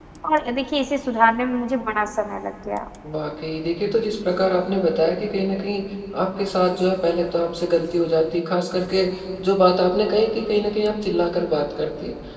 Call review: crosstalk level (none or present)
none